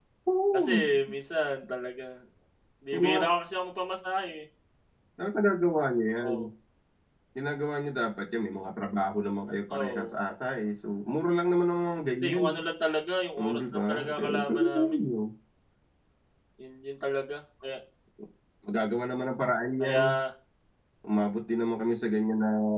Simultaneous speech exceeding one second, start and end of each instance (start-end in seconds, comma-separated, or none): 13.4-15.0